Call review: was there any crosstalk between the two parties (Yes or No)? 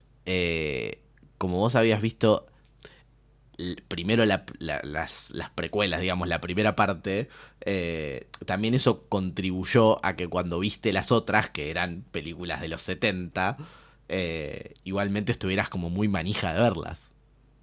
No